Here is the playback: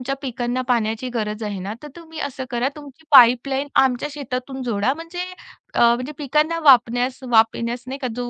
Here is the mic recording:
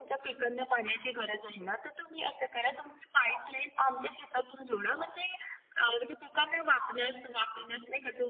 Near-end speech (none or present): none